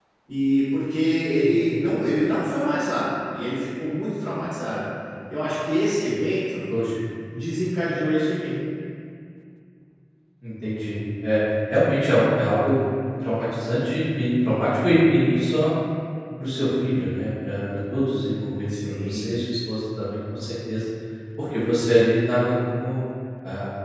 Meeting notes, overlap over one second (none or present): none